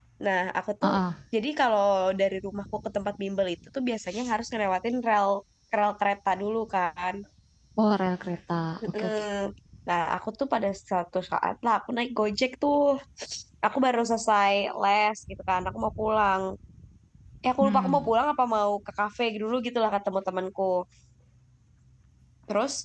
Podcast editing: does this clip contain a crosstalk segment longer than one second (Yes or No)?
No